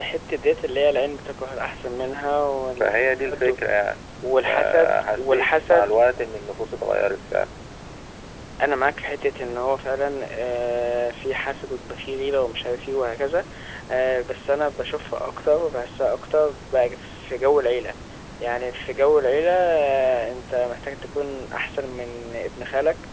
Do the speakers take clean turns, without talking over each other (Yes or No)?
No